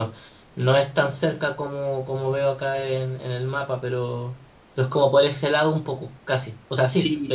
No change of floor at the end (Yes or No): No